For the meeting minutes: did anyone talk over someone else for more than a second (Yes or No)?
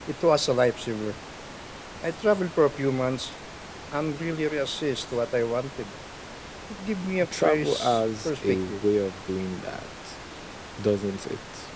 Yes